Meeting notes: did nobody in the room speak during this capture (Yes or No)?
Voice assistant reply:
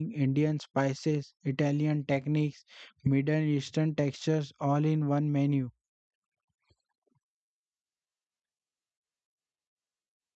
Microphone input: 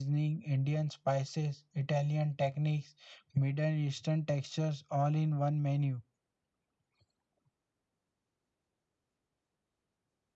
Yes